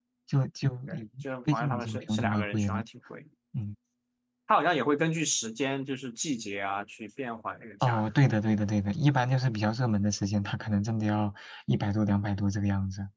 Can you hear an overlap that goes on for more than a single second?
Yes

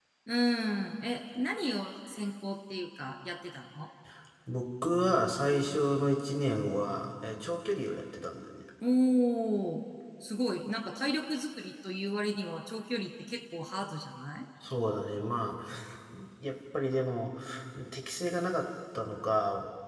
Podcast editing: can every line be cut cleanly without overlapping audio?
Yes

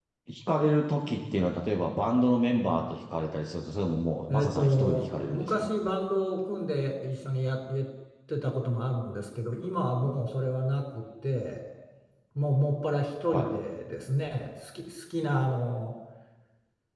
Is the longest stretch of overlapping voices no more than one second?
No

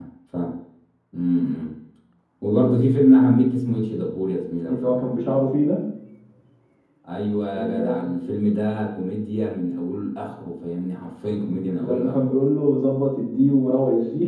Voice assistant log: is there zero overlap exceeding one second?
Yes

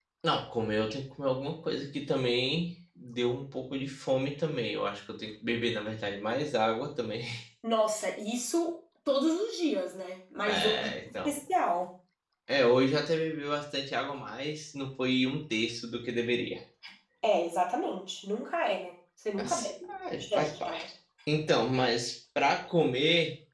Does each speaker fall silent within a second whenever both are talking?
No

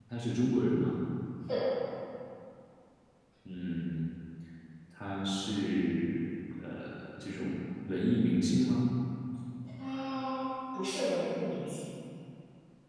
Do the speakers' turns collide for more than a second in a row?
No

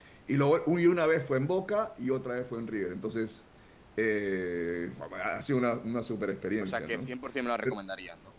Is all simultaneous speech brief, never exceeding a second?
Yes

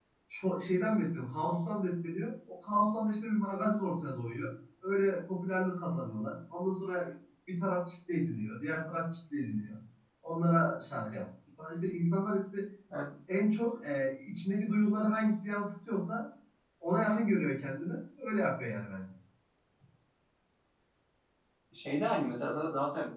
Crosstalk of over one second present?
No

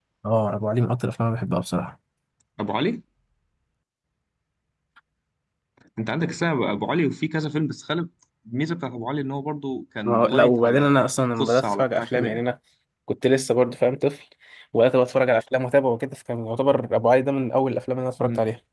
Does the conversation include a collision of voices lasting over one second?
Yes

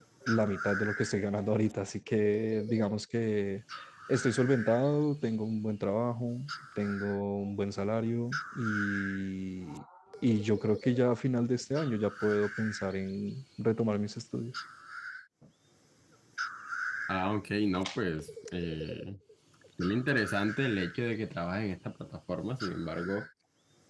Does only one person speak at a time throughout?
Yes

